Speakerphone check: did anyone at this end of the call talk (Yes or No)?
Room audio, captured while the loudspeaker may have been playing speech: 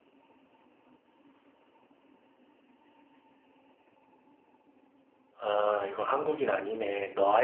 Yes